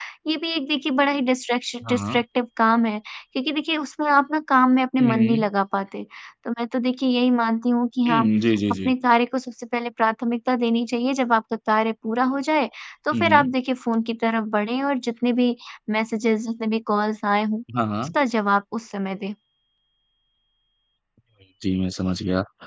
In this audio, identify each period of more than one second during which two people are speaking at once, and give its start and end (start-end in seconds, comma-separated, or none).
none